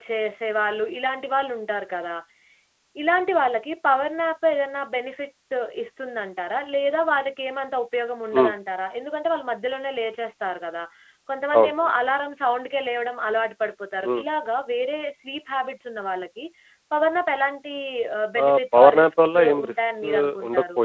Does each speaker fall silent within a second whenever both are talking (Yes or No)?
No